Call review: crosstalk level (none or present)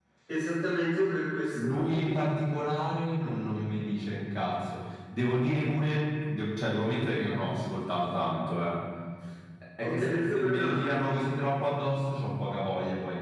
present